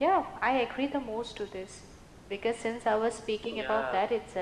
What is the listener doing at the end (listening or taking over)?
listening